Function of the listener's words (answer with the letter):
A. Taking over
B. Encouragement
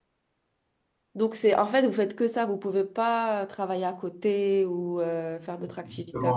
A